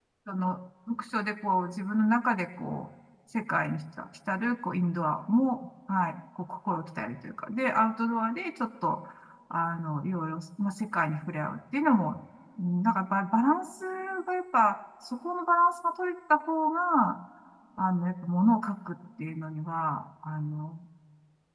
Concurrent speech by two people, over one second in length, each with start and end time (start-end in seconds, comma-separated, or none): none